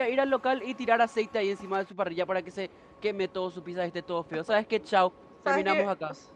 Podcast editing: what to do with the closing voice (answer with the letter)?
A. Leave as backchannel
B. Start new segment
B